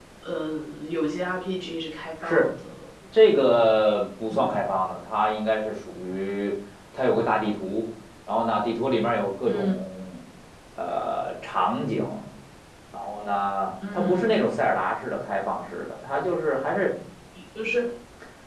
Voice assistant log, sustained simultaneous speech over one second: none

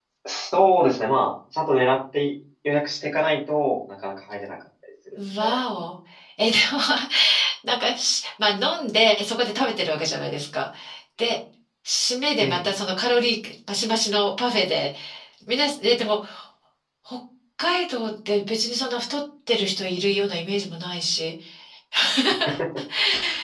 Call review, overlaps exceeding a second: none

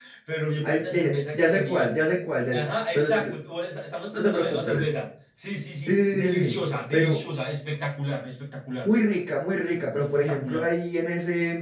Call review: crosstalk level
present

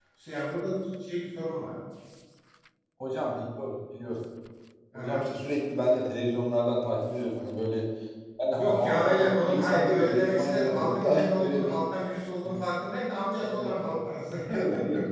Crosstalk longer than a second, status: present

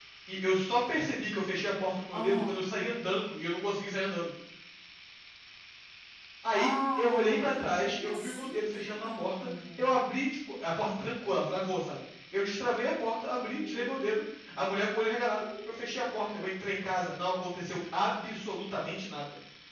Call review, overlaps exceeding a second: present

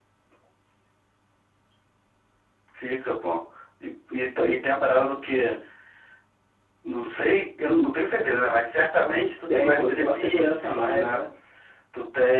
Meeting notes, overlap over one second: present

